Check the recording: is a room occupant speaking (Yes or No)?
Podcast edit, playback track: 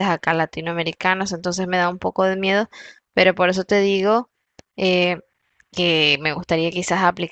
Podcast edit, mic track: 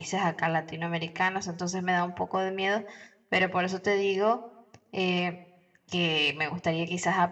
No